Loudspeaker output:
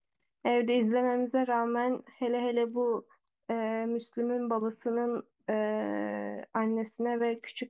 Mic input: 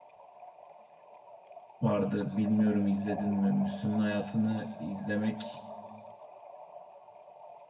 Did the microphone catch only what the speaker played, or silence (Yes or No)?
No